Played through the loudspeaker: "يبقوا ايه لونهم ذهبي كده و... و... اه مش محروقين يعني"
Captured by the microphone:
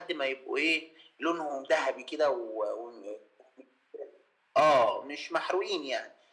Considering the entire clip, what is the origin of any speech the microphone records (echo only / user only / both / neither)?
echo only